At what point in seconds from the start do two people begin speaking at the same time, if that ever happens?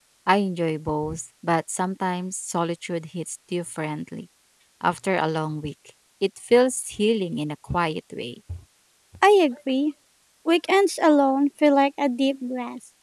none

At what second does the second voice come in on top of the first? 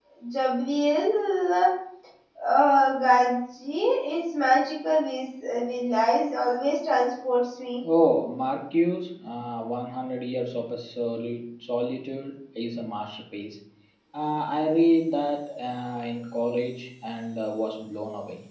none

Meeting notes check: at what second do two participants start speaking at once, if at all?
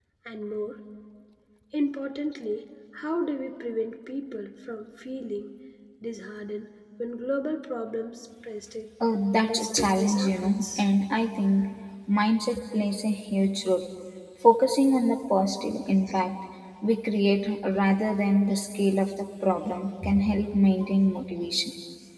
9.5 s

